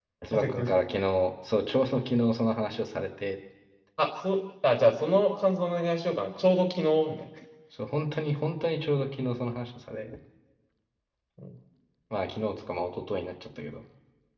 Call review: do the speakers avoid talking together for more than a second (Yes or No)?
Yes